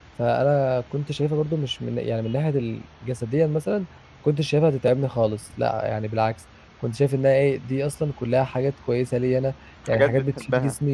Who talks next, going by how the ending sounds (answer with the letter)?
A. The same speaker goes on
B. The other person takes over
A